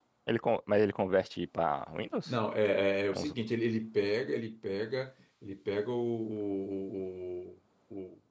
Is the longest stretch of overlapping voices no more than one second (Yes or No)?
Yes